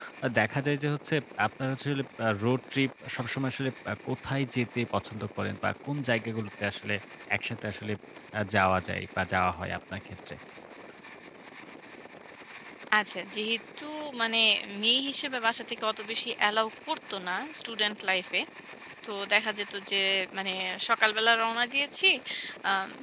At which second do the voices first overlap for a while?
none

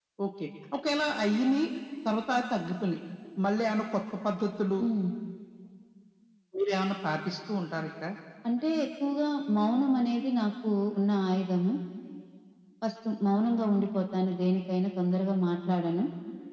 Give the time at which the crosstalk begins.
none

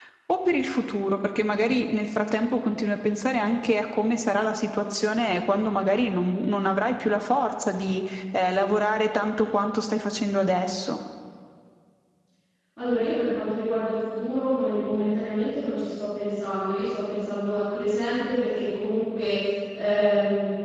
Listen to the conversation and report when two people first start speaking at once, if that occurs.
none

